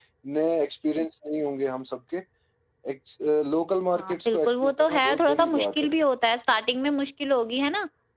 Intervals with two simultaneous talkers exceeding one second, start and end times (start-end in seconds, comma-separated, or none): 4.0-5.9